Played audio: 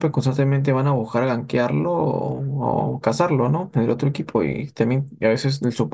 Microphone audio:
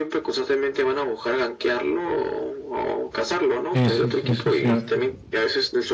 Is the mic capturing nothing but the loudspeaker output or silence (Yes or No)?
No